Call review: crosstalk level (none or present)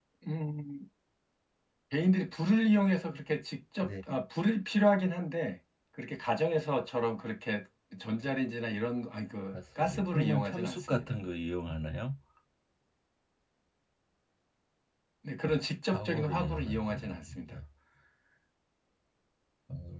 present